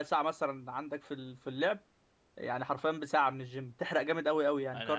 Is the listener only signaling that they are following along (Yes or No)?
No